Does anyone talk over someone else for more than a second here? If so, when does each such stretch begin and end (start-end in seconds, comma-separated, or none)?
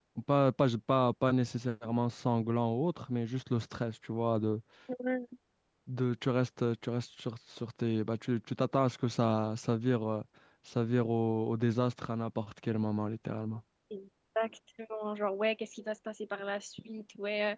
none